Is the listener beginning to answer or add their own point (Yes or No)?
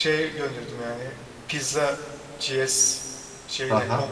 Yes